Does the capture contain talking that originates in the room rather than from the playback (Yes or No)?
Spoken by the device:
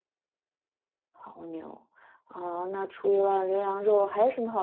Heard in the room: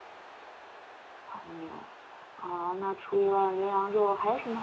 No